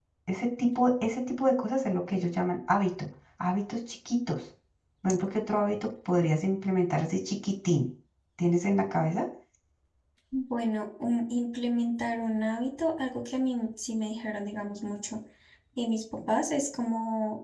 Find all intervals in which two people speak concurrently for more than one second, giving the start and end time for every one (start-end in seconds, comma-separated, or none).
none